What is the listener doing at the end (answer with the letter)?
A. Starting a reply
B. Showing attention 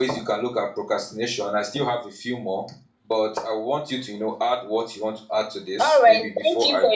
A